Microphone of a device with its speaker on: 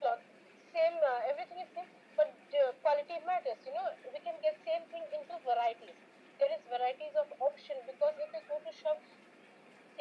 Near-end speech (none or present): none